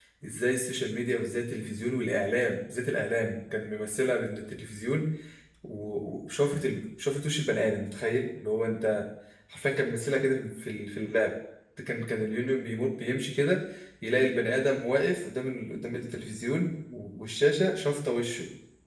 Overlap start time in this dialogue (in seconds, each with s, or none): none